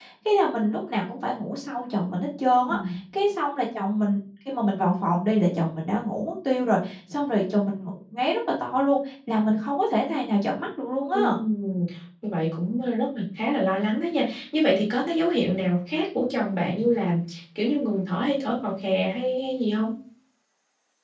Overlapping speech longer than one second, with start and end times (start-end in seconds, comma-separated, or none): none